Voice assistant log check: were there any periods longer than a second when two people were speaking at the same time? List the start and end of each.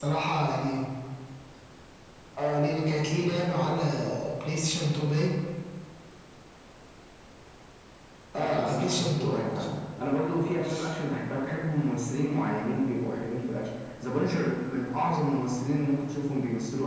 8.4-9.7

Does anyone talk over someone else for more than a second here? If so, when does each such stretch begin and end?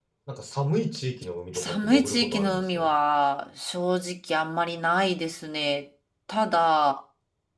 1.5-2.8

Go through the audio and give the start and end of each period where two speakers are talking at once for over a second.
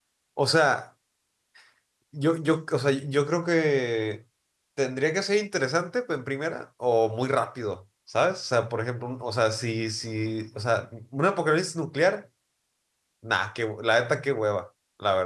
none

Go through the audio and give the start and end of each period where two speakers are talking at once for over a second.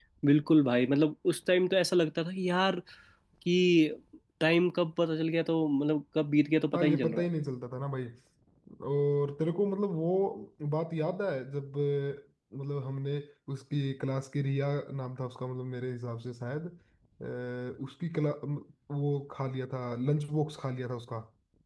none

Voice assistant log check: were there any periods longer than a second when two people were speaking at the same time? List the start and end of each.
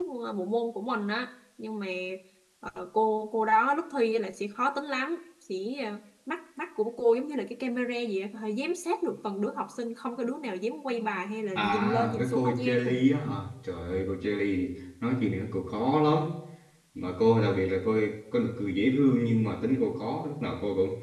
11.6-12.8

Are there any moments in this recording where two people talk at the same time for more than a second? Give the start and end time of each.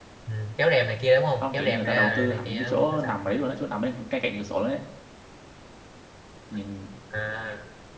1.4-3.1

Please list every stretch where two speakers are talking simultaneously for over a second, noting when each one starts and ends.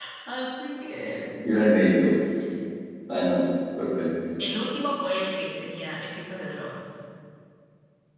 none

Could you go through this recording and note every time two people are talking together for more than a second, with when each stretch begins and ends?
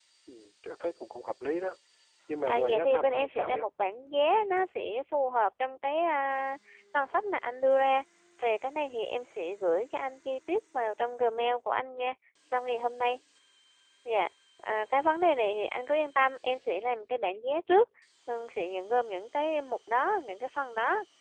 2.4-3.7

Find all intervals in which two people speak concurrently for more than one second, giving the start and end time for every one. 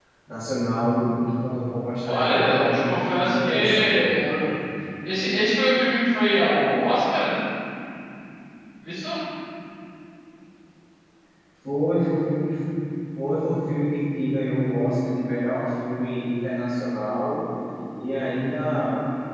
2.0-4.0

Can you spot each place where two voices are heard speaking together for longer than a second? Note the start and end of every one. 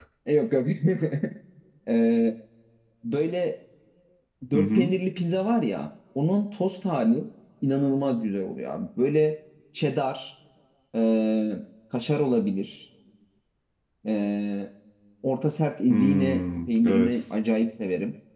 15.9-17.3

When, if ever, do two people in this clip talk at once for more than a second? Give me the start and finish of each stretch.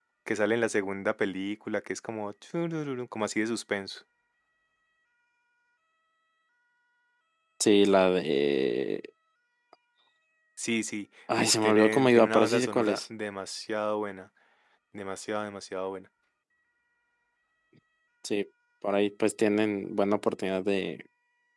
11.4-13.0

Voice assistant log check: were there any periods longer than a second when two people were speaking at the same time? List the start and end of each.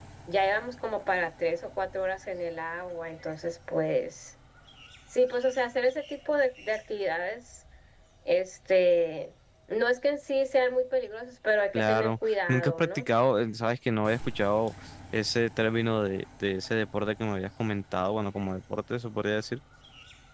11.7-13.1

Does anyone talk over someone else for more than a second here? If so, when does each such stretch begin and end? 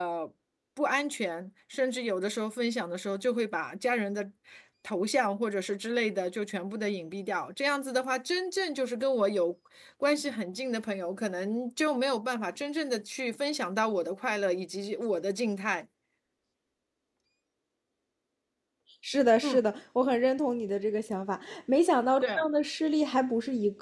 none

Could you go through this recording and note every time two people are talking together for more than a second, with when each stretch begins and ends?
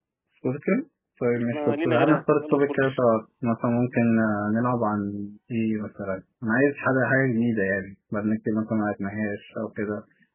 1.5-3.0

